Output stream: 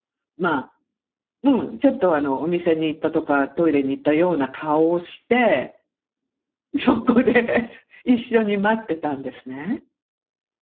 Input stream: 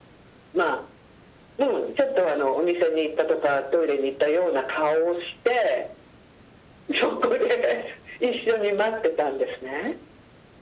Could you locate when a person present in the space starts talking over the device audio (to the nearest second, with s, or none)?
none